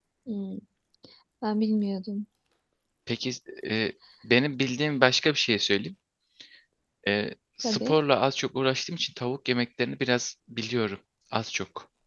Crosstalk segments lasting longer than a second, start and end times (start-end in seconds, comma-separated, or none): none